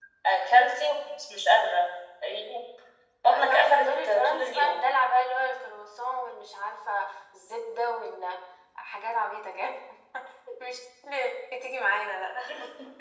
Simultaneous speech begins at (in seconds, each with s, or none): 3.3 s